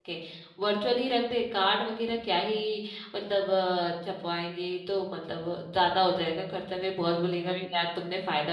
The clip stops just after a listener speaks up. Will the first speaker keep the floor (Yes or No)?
Yes